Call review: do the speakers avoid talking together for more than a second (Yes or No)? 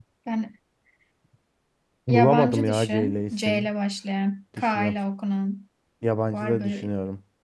No